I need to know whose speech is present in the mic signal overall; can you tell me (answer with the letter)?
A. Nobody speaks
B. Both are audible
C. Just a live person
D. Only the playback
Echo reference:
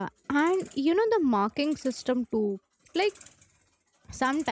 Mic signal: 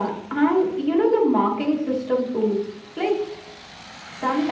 D